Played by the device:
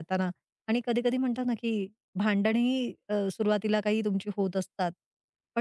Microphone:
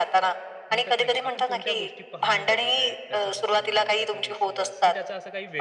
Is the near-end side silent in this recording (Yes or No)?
No